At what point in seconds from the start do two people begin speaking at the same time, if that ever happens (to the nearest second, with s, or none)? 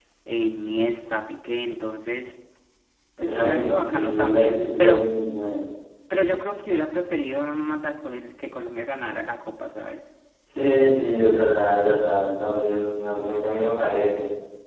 3 s